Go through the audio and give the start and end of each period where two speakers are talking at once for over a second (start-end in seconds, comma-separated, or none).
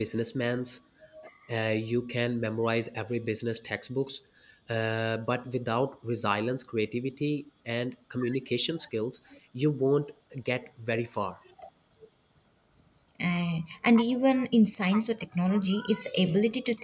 none